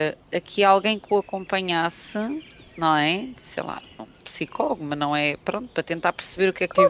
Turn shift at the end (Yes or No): Yes